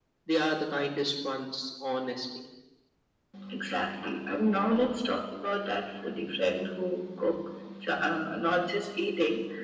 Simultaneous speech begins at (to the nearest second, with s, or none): none